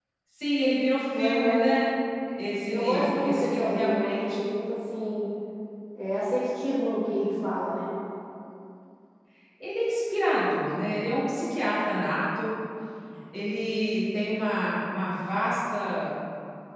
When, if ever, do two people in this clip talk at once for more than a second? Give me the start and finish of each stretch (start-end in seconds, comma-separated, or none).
2.7-4.6